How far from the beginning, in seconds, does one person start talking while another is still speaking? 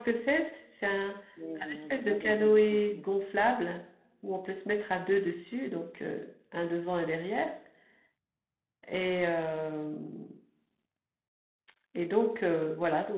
2 s

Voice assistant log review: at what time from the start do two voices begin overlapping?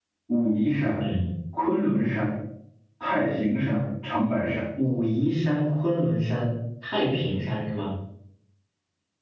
none

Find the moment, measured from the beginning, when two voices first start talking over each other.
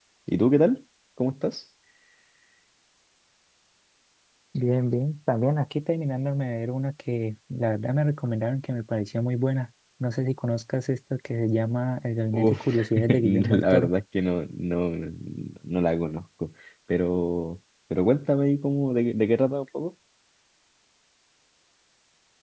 12 s

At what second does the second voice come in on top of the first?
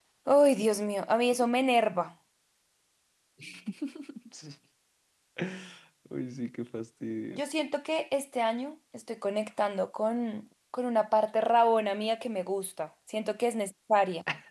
none

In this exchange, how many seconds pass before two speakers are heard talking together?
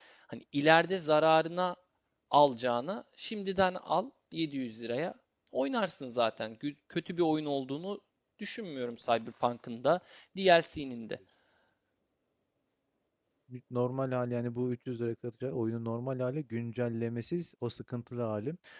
none

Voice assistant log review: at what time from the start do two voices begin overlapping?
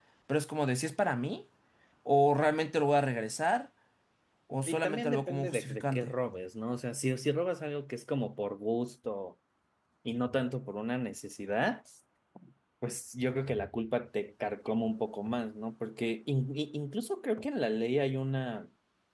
5 s

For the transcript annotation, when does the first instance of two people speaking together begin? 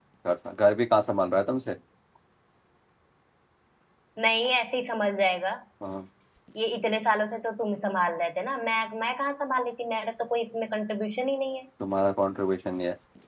none

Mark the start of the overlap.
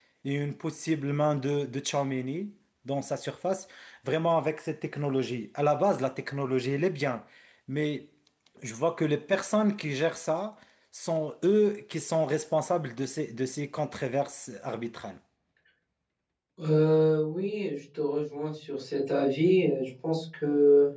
none

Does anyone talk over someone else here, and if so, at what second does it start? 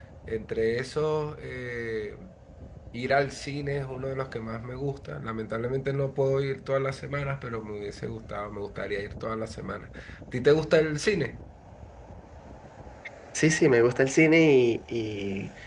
none

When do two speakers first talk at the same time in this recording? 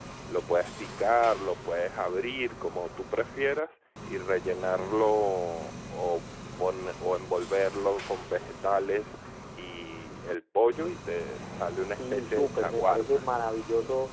12 s

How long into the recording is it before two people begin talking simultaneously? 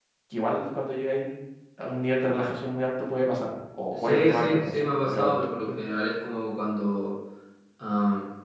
4 s

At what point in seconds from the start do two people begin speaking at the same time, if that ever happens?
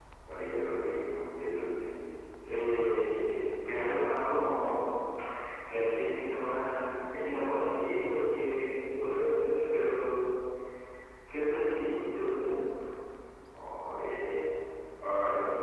none

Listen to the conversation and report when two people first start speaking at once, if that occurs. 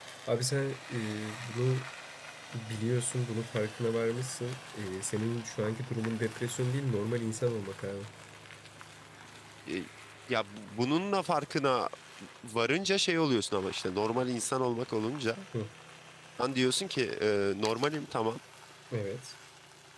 none

